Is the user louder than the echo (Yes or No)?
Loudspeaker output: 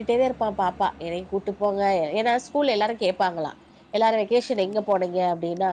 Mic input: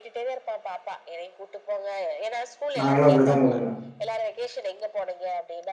Yes